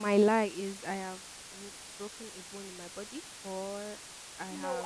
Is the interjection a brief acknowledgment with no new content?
No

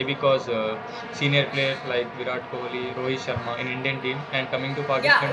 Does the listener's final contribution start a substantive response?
Yes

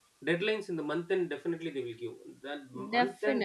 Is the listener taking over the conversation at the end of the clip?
Yes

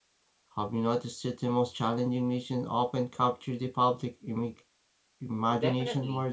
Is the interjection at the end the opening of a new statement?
Yes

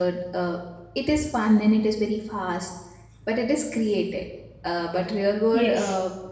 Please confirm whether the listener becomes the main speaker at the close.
No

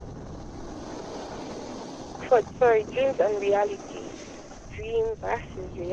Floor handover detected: No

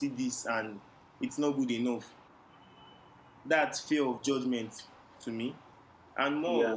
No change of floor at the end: Yes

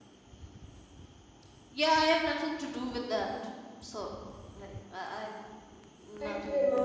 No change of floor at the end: No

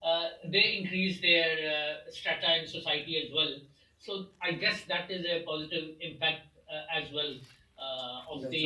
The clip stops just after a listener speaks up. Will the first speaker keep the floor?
Yes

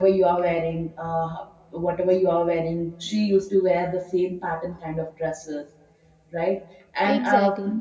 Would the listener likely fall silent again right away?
Yes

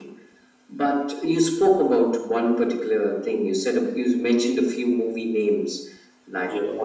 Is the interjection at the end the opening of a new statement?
No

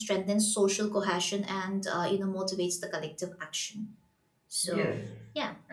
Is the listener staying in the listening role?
No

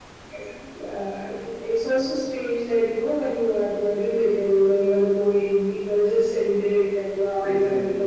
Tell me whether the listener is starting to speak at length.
No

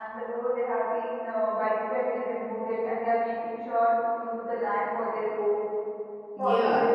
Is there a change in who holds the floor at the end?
Yes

